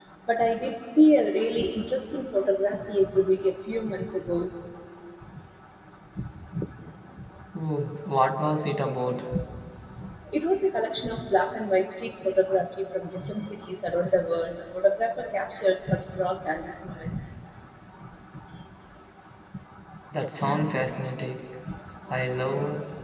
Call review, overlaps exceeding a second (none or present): none